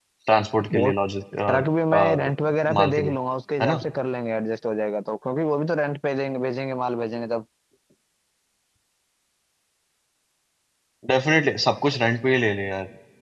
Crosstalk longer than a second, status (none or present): none